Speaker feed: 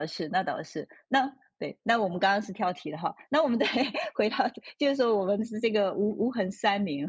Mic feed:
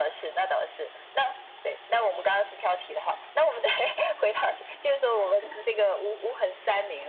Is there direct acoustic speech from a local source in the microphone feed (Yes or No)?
No